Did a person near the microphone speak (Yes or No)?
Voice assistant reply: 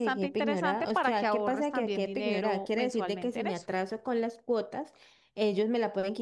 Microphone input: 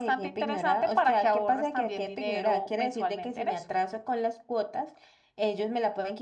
No